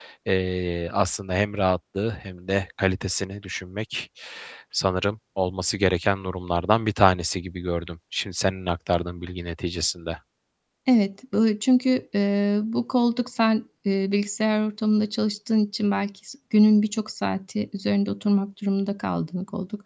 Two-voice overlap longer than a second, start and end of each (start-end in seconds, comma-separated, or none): none